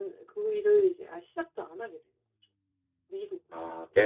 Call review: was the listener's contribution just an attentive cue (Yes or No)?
No